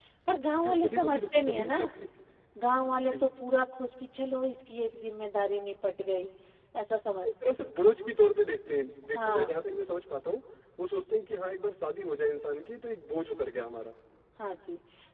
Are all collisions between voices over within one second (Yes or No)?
No